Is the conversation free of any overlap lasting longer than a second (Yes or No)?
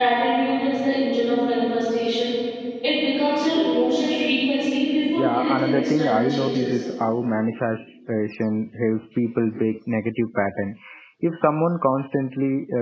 No